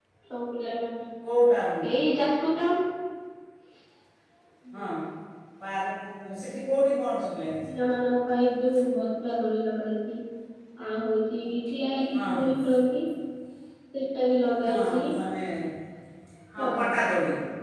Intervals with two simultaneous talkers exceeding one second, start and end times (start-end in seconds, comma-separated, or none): none